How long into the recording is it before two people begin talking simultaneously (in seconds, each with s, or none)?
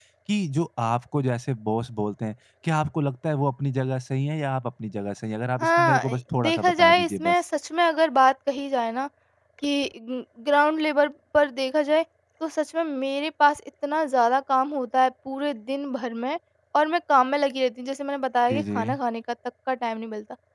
5.6 s